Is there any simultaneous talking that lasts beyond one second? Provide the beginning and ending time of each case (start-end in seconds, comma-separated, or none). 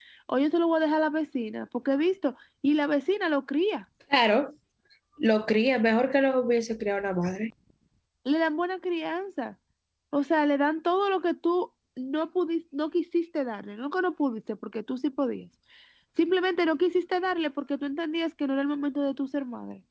none